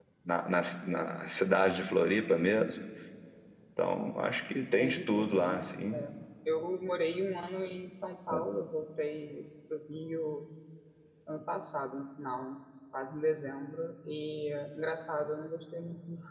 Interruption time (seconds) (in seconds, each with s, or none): 4.8 s